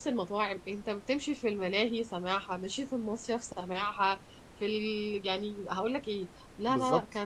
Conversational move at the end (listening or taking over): listening